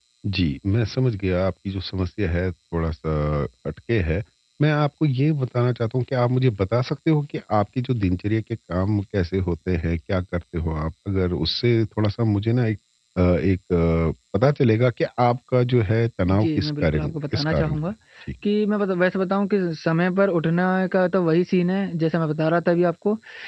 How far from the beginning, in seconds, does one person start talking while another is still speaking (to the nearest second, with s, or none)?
16 s